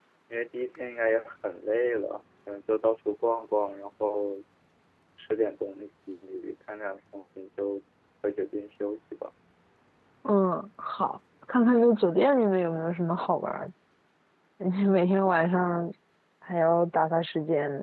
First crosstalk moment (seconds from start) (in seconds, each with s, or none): none